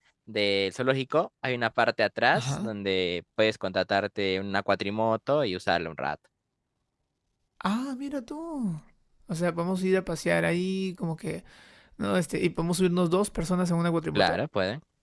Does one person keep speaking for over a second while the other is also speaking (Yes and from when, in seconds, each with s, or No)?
No